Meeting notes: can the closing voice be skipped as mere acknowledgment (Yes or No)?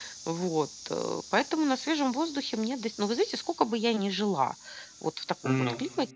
Yes